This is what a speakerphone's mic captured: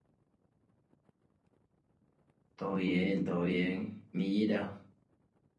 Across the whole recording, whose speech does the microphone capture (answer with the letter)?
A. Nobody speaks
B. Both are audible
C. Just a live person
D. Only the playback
C